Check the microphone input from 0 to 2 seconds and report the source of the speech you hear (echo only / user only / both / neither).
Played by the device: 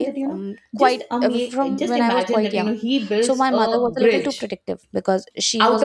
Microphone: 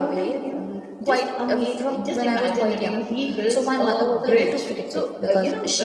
echo only